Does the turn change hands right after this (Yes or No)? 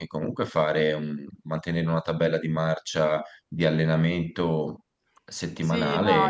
Yes